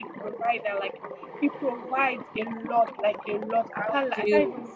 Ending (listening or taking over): listening